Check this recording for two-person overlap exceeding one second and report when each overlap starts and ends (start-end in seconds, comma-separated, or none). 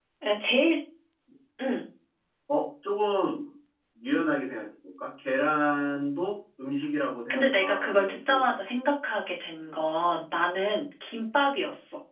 7.3-8.6